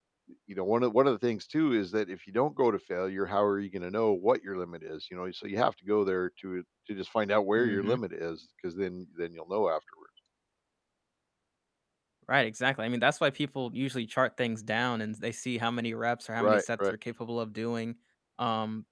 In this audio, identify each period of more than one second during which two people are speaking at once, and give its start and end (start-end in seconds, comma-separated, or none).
none